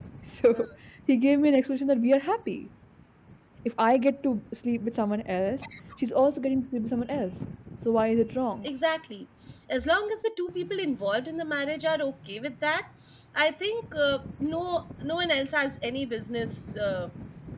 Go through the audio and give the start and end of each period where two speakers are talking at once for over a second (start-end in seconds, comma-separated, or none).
none